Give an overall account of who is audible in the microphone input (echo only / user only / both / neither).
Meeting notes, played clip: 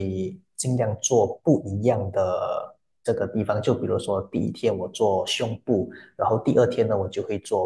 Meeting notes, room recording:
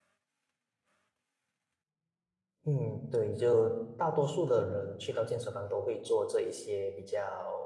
user only